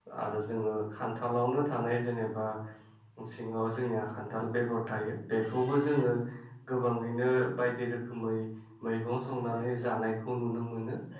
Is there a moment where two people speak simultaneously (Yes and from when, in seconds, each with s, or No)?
No